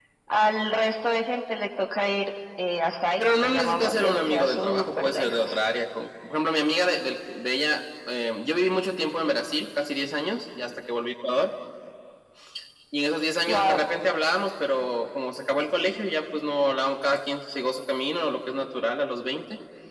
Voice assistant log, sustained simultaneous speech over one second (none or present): present